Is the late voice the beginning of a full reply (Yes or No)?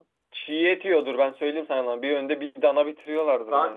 Yes